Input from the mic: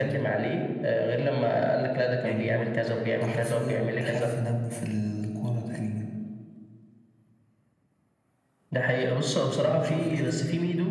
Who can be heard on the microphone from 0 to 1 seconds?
echo only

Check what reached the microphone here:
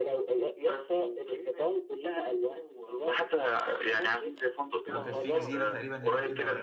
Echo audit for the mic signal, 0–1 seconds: echo only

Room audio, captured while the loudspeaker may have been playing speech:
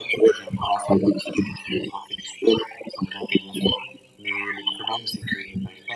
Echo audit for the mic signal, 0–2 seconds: echo only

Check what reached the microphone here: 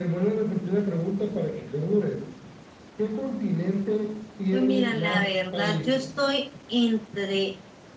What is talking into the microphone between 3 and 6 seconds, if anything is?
both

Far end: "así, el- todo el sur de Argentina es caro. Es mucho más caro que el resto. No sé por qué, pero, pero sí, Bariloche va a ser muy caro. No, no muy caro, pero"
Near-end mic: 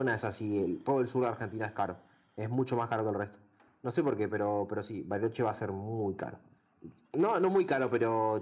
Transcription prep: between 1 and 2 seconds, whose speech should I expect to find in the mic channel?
echo only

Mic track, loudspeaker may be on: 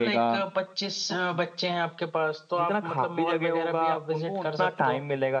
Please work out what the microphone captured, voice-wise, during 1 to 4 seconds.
echo only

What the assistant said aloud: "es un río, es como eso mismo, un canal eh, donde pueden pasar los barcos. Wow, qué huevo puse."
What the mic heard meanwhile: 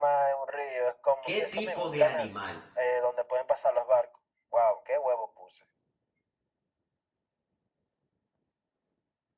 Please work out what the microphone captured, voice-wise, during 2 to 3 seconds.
both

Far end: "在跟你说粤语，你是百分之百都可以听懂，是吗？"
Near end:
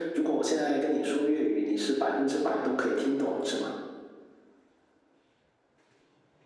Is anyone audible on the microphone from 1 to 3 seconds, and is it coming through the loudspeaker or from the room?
echo only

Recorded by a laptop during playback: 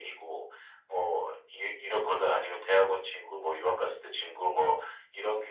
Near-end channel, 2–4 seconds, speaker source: echo only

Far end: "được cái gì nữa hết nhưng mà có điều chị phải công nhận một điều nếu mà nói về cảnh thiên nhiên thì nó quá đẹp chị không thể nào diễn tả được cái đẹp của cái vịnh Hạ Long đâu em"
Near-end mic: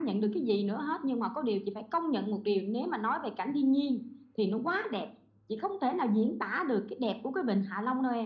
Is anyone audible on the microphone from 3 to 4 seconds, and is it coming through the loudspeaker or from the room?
echo only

